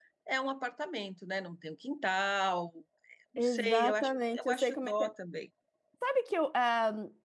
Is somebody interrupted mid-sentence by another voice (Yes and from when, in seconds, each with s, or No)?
Yes, from 3.4 s